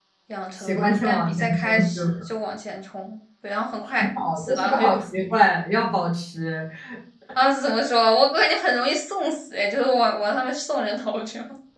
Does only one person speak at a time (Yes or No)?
No